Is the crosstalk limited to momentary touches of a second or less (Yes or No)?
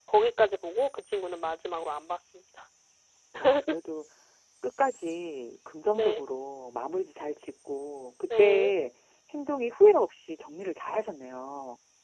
Yes